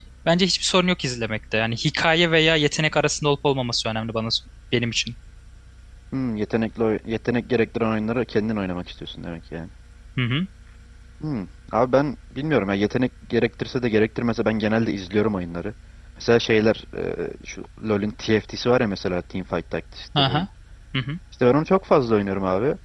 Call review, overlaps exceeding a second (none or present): none